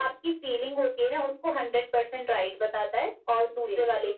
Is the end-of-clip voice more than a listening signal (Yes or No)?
No